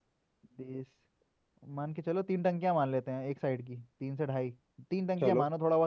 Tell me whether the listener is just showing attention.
Yes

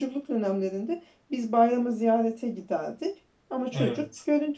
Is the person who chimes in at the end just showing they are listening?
Yes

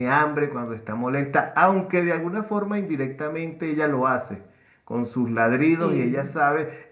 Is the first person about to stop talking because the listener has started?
No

